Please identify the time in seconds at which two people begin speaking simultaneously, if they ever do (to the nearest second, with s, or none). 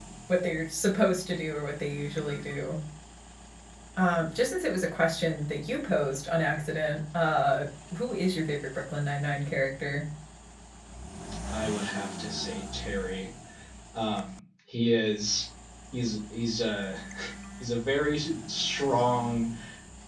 none